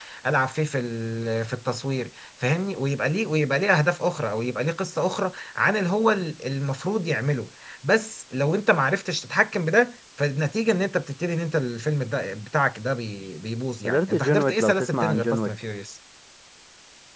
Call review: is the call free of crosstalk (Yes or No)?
No